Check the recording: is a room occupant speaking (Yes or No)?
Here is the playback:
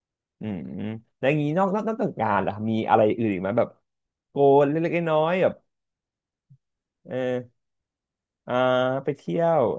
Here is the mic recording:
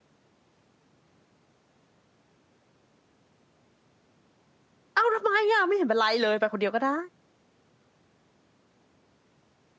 Yes